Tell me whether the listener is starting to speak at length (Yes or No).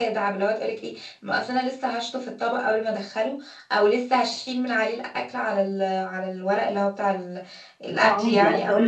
Yes